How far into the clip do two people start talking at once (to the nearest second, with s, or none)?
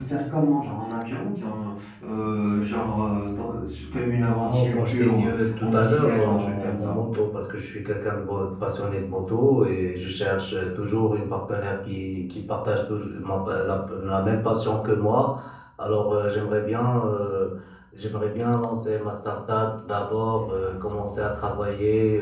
4 s